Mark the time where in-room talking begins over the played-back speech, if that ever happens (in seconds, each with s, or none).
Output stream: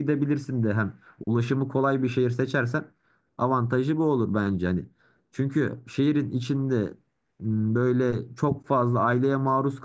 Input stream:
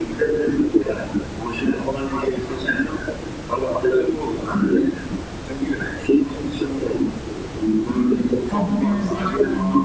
8.5 s